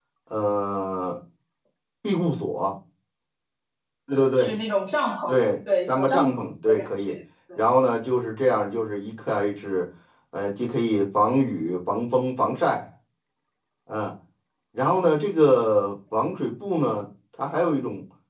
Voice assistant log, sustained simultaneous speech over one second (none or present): present